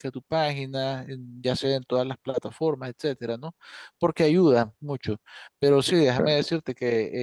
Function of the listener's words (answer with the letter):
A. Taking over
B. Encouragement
B